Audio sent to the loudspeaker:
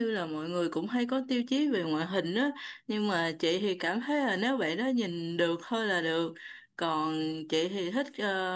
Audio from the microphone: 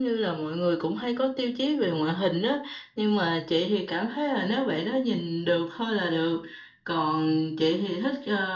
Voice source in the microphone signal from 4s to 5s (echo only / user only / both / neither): echo only